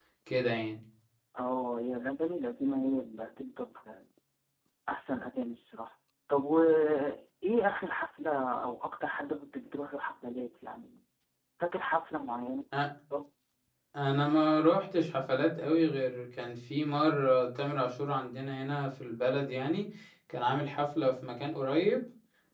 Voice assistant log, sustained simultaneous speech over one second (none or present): none